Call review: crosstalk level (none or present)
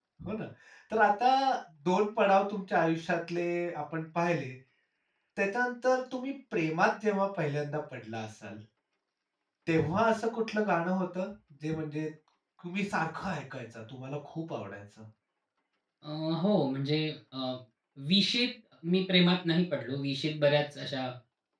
none